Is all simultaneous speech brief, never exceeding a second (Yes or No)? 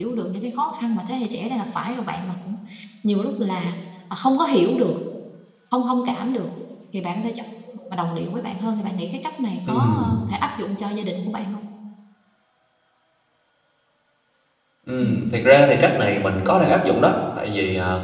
Yes